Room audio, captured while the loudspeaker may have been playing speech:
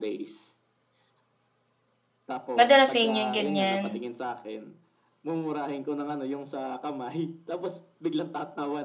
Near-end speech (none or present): present